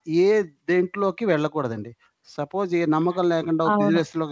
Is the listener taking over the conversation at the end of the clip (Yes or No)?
No